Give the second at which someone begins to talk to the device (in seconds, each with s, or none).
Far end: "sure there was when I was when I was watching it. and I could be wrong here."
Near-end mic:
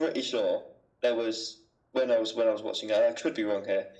none